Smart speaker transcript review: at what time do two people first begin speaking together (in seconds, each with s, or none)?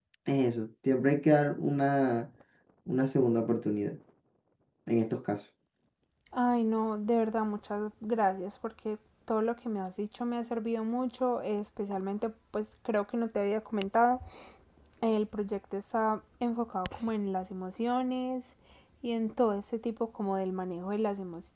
none